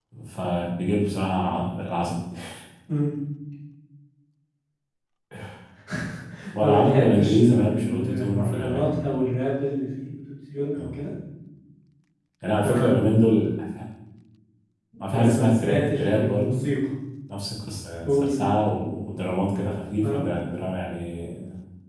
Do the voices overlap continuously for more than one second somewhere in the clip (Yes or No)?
Yes